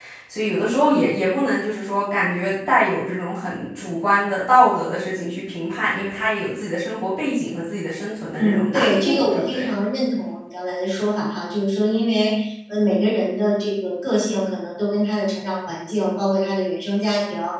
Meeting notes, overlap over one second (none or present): present